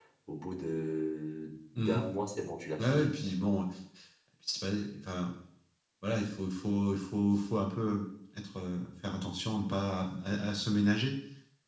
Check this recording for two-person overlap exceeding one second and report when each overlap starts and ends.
none

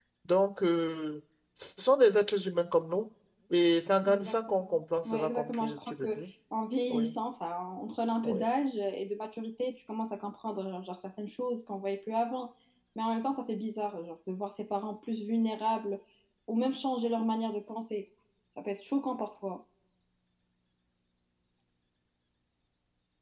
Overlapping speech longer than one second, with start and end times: 4.1-6.2

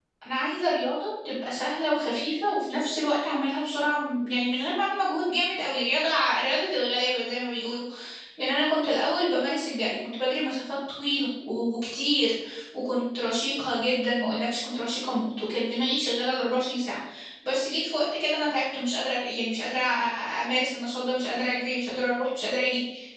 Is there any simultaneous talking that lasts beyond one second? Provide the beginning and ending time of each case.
none

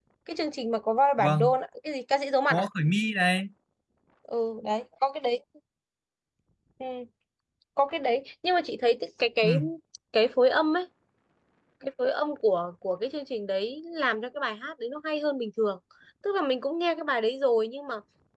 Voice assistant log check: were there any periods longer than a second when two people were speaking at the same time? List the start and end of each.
none

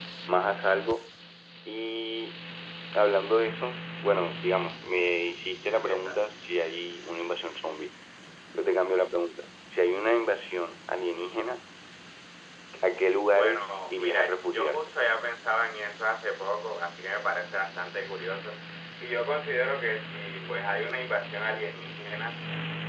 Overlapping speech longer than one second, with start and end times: 13.4-14.8

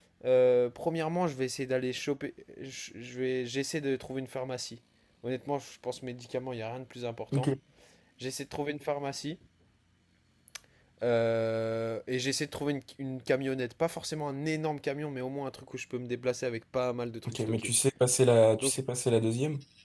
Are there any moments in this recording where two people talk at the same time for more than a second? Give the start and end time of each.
none

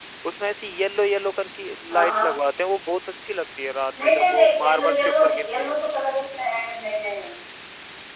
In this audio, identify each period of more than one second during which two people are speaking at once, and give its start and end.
4.0-5.8

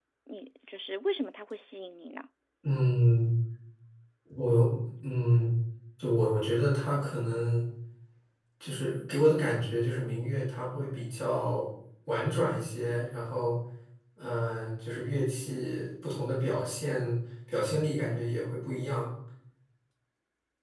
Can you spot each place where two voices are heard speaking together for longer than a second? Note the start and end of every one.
none

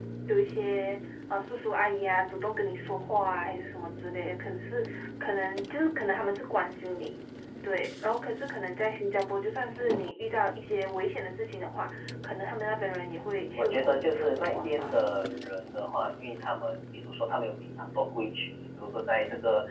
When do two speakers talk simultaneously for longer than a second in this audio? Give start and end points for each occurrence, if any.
13.3-15.0

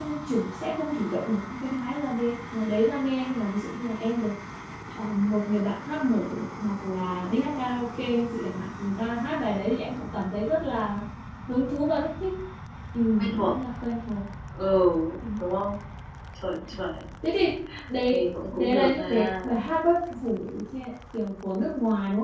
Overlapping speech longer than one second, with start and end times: 18.1-19.3

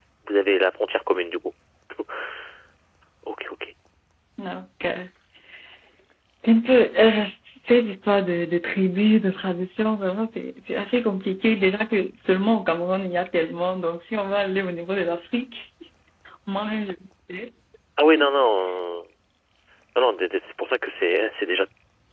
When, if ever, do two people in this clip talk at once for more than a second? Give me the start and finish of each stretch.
none

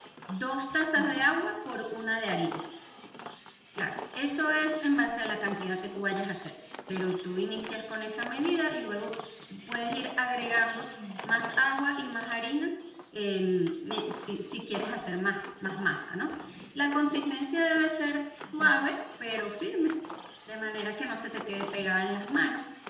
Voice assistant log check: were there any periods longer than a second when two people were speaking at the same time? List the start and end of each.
none

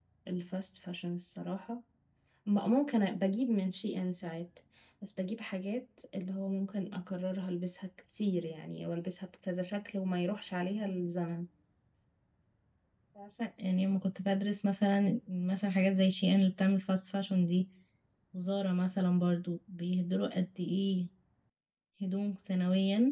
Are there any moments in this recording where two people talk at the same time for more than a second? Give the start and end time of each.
none

